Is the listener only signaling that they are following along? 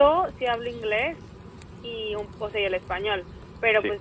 Yes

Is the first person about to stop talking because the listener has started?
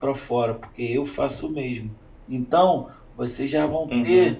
No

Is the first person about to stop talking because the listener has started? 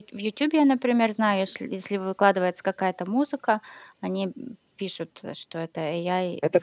Yes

